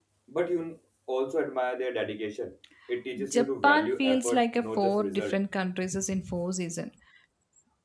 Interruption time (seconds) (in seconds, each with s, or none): 3.3 s